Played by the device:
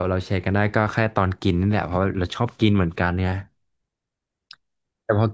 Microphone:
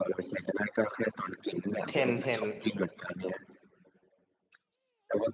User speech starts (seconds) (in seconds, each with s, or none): 1.8 s